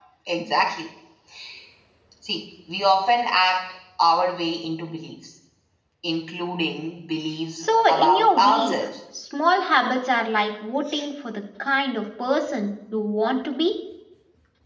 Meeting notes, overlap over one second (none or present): present